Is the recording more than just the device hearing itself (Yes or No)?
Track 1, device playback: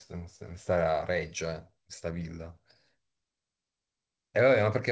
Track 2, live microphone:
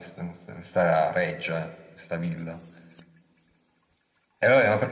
No